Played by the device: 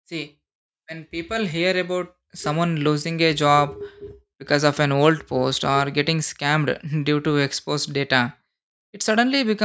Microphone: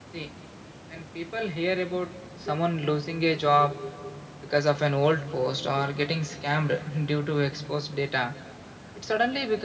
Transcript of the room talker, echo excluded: none

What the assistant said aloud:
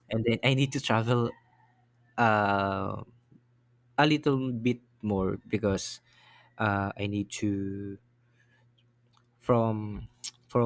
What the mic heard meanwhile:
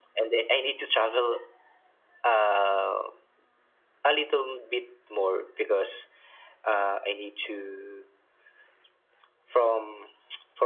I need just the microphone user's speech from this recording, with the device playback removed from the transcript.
none

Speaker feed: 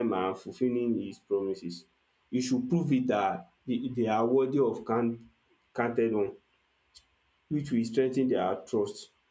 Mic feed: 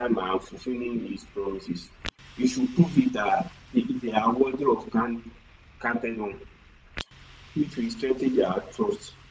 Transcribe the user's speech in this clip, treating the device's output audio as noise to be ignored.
none

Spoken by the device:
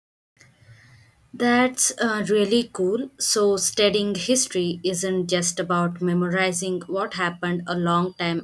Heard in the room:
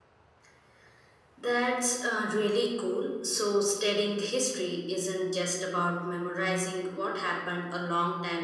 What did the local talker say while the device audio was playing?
none

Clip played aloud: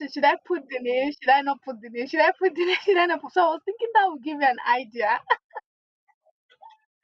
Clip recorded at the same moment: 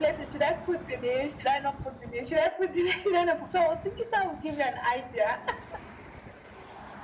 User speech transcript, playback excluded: none

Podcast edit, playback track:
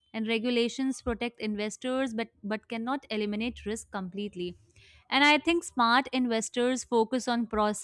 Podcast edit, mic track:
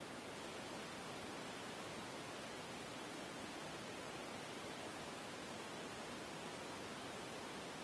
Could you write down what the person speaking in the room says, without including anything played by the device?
none

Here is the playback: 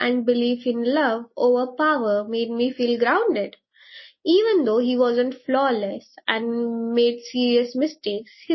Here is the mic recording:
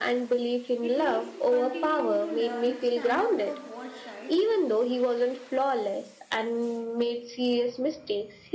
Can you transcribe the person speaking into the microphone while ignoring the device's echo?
It means continuing to learn, stand up for what's right,

